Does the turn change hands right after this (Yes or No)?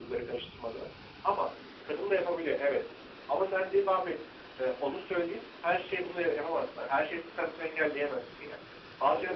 No